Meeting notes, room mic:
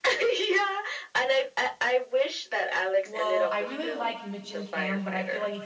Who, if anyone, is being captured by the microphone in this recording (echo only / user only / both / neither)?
both